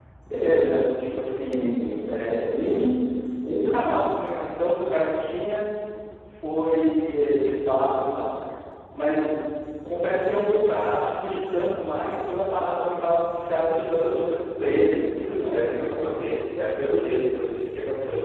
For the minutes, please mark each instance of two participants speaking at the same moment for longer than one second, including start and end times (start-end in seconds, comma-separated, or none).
none